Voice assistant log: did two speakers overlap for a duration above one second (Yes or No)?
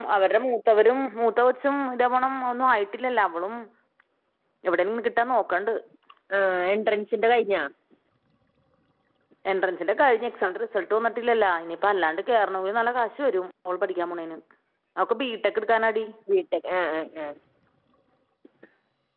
No